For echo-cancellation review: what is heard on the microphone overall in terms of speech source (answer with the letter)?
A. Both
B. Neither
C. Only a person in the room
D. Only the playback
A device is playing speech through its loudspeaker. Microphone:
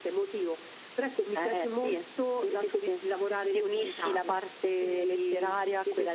D